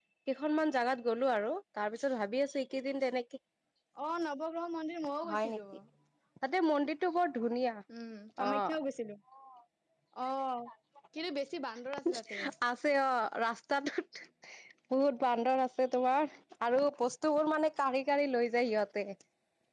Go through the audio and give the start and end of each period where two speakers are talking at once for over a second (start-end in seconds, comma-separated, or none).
none